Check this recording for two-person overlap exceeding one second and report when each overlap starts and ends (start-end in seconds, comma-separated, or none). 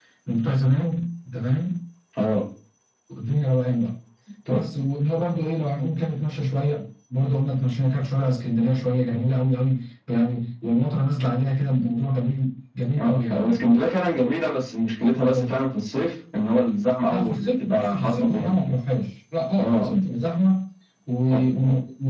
17.1-18.6